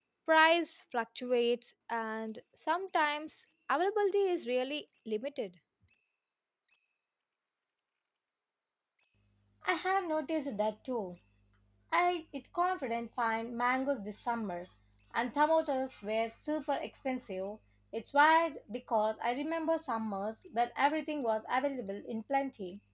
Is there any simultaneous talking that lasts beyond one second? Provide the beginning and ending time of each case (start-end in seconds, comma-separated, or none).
none